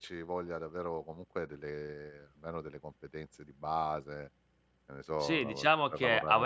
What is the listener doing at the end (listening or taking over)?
taking over